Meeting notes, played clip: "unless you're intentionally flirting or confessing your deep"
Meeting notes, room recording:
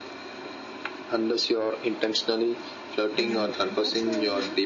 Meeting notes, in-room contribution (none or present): present